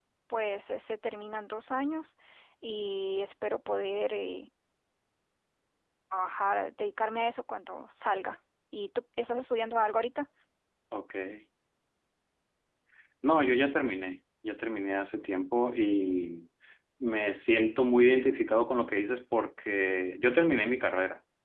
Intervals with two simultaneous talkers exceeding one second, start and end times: none

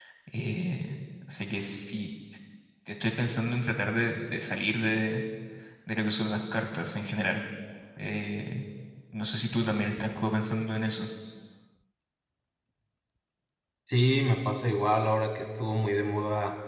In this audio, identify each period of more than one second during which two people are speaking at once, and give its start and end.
none

